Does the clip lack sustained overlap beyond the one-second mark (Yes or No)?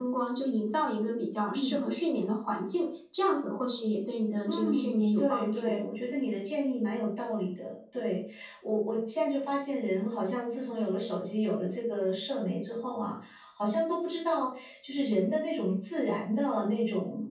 No